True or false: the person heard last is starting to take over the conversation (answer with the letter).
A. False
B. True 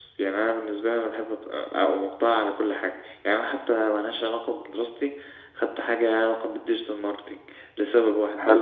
A